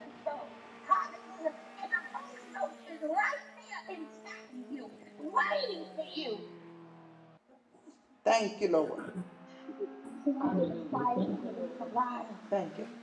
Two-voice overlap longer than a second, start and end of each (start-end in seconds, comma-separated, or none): 10.4-11.9